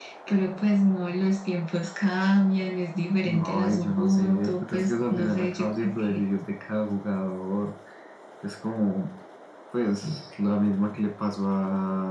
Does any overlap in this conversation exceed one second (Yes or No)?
Yes